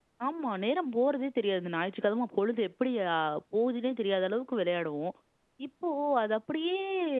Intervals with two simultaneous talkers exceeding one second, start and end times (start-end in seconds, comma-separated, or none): none